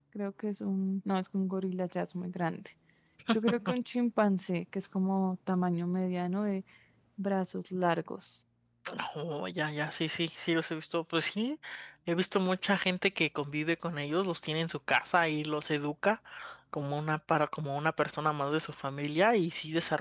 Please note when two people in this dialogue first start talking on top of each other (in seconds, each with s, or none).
none